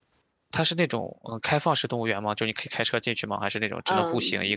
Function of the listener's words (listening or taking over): taking over